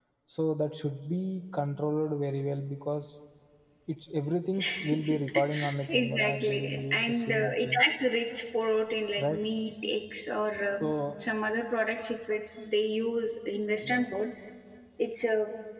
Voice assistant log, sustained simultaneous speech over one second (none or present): present